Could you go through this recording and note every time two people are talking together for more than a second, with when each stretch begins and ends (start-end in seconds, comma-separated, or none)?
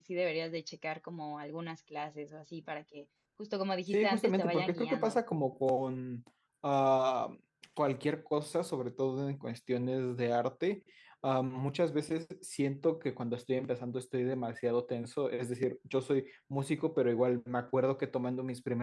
3.9-5.2